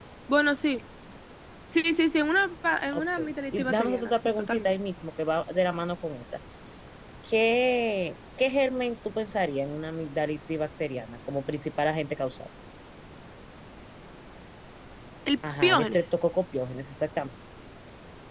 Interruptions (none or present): present